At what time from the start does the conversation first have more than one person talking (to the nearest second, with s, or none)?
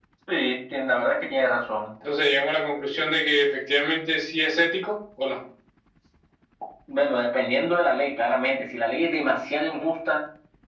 none